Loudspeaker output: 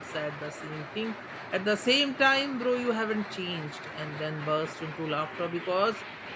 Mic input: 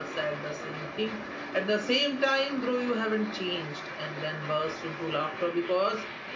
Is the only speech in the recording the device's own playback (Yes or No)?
Yes